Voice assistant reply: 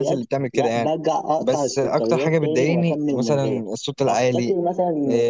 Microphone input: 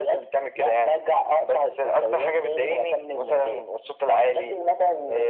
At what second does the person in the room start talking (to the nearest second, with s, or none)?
none